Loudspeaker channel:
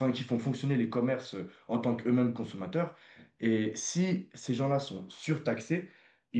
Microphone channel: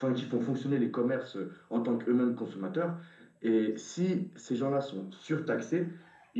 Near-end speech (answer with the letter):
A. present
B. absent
B